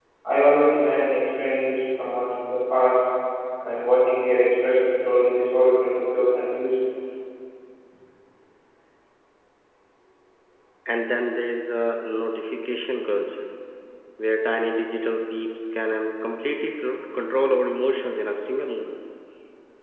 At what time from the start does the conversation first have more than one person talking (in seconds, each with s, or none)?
none